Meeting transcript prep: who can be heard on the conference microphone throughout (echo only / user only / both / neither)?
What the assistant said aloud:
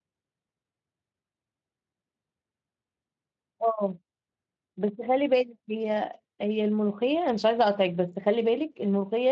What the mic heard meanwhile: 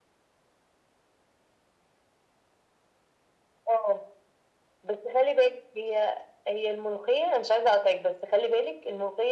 echo only